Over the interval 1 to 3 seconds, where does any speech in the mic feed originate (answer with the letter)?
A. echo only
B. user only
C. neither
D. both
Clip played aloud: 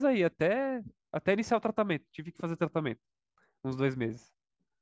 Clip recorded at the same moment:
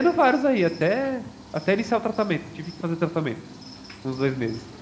A